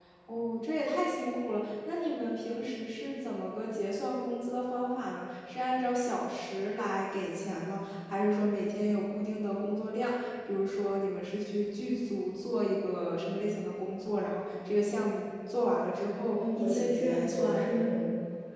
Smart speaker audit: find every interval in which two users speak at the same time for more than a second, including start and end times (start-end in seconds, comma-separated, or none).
16.3-17.8